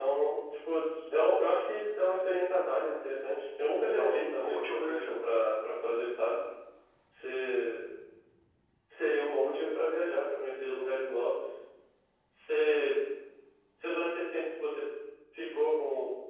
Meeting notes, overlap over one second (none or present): present